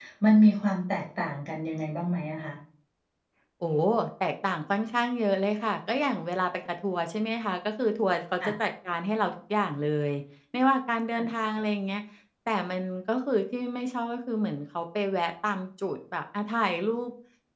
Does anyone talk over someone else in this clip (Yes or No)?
No